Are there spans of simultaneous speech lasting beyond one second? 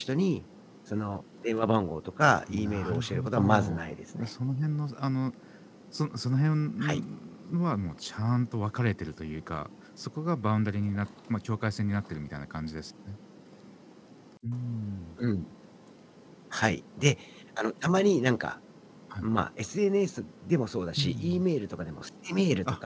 Yes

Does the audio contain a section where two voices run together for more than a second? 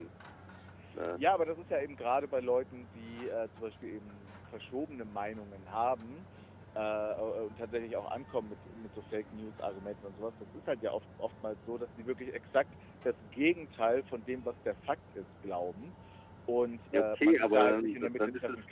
Yes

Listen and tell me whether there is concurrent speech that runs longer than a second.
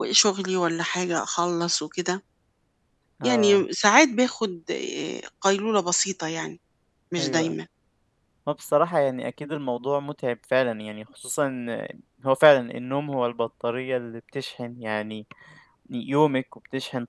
No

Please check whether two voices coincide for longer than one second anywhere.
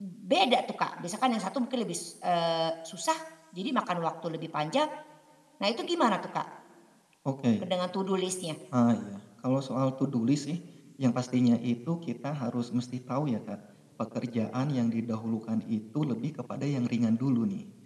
No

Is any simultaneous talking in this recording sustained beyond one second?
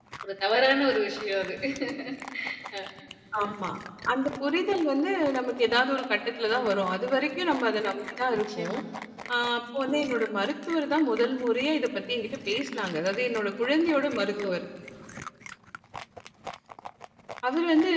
No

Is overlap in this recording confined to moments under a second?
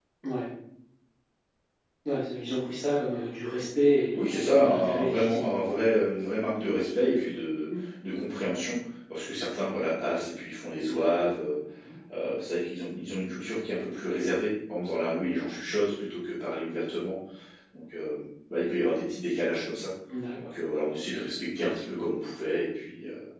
No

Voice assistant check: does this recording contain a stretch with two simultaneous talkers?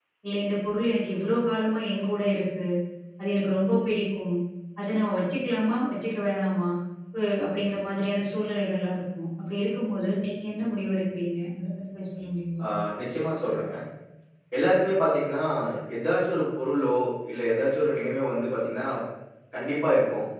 No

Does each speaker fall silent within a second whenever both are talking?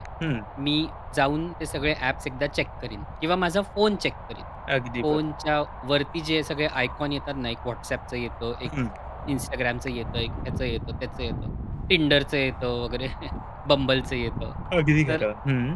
Yes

